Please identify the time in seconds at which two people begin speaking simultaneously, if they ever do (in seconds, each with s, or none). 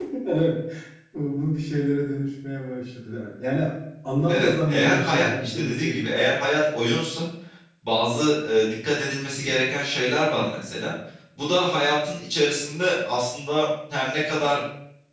4.3 s